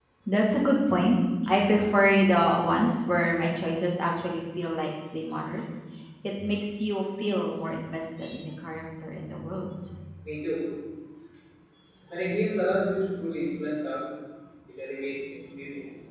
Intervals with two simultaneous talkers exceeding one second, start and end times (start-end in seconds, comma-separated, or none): none